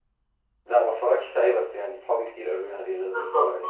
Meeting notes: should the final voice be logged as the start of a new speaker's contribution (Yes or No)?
Yes